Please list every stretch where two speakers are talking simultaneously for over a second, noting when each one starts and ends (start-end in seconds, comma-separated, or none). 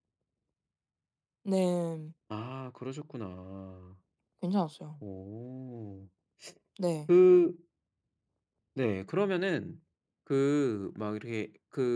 none